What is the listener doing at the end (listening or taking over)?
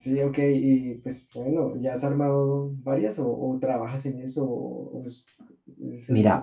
taking over